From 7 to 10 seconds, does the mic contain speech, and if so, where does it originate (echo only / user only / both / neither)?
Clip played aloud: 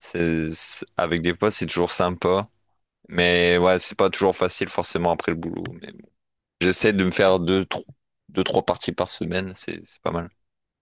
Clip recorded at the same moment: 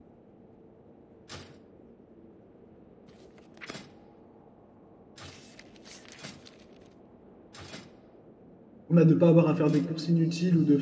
user only